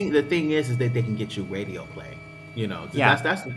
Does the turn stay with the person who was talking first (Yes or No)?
Yes